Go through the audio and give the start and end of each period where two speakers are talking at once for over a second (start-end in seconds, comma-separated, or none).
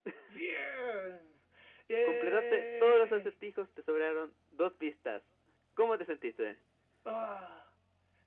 2.0-3.3